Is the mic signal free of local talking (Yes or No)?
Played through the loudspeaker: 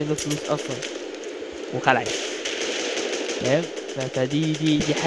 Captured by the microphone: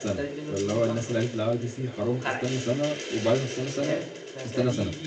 No